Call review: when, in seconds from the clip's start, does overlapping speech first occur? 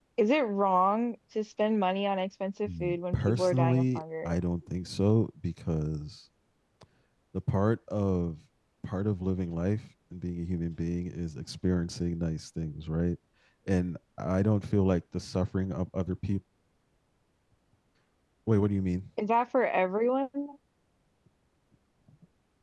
2.6 s

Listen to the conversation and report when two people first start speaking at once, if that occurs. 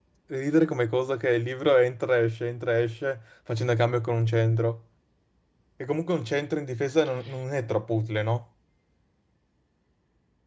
none

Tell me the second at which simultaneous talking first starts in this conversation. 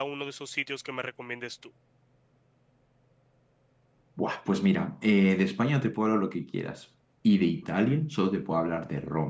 none

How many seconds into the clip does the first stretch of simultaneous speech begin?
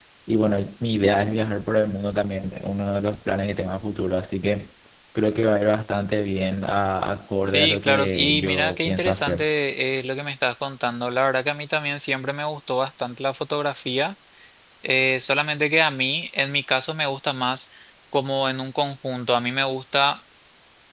7.5 s

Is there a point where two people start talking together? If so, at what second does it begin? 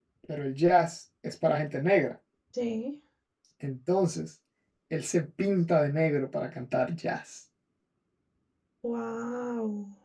none

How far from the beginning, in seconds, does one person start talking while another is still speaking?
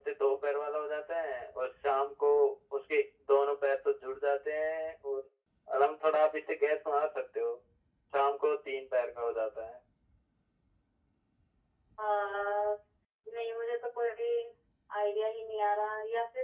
none

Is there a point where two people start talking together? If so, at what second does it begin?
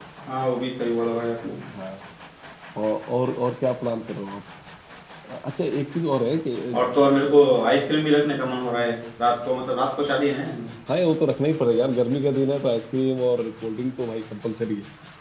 none

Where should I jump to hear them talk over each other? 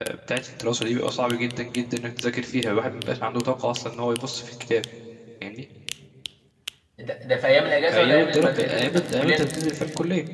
7.9 s

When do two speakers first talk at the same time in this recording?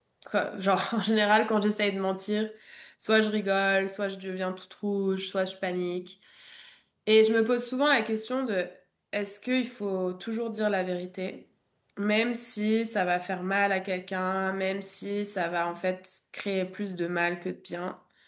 none

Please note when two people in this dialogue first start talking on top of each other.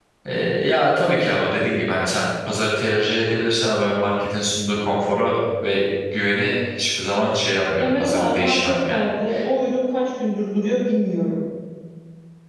7.8 s

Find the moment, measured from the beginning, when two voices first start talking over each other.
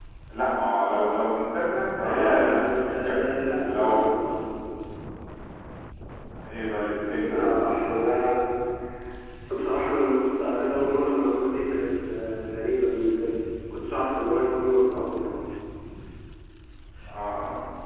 2.0 s

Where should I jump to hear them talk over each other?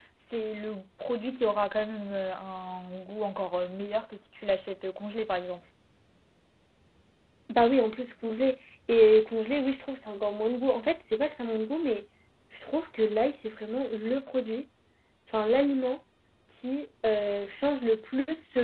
none

